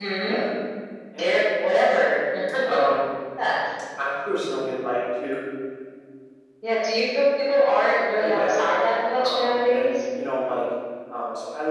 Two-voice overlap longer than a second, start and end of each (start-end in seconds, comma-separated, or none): 8.2-10.0